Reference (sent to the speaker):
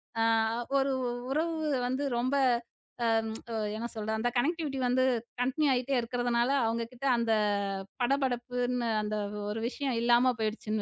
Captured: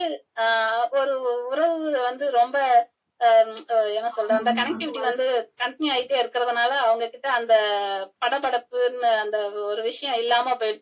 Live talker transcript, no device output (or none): ஆமாங்க. அதுவும் வலது கை.